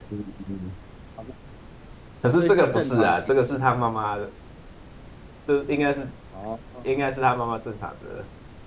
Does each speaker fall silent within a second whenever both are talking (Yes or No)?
No